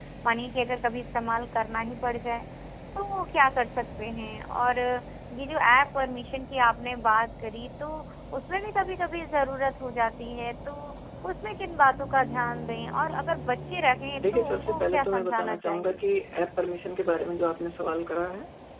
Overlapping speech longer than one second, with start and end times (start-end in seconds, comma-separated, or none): 14.3-16.0